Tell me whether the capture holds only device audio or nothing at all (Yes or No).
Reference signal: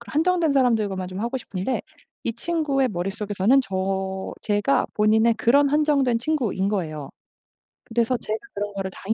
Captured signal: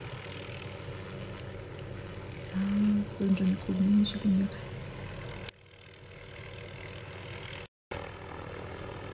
No